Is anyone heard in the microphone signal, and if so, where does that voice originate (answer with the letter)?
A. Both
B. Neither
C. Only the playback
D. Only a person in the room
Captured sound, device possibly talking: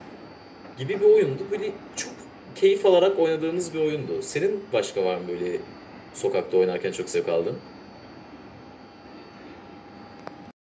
D